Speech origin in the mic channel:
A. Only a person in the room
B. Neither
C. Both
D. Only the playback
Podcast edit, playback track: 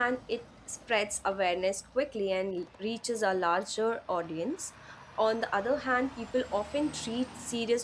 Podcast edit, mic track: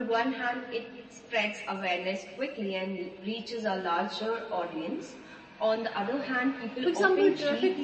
C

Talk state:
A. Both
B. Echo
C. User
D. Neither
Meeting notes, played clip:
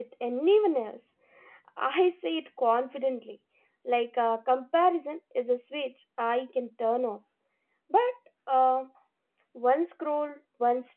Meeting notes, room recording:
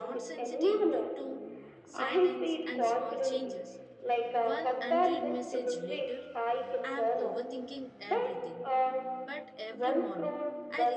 A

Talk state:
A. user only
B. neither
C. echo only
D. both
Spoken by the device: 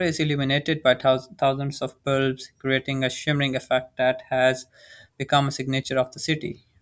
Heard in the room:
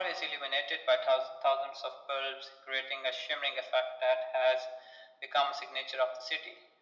C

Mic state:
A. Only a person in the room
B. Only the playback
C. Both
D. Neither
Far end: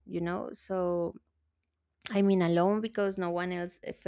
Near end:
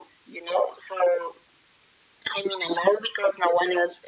B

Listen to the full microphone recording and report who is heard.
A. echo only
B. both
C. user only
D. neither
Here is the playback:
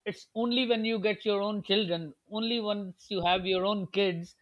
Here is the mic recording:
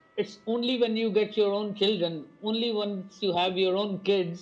A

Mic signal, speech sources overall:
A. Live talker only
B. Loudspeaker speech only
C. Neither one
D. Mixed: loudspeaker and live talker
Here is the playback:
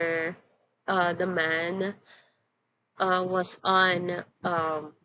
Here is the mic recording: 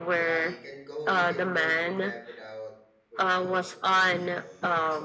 D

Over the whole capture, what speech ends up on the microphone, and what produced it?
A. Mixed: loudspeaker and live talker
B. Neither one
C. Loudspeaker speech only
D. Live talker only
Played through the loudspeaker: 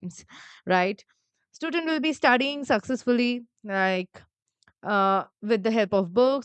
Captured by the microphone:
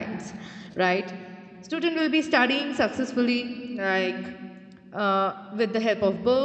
C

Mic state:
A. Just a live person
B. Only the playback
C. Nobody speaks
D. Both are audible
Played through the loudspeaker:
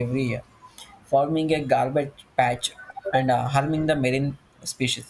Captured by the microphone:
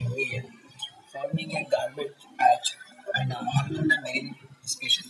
B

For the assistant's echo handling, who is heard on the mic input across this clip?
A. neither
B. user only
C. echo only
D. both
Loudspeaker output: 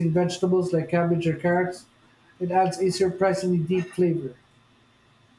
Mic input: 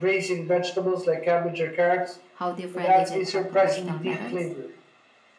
D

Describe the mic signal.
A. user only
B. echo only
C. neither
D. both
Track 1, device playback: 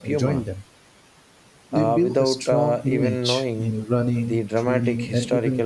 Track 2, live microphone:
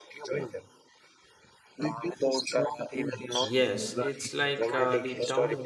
D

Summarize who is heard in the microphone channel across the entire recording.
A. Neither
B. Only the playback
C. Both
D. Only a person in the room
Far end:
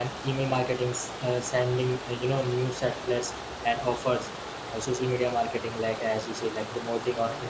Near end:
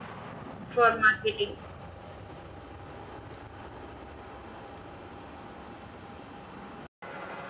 D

